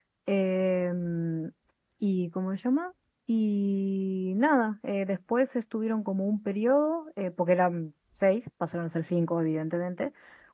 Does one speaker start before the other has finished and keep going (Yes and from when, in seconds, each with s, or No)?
No